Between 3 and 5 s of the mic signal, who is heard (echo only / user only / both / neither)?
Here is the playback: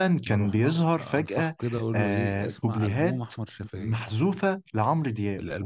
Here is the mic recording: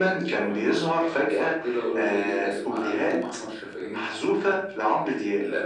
echo only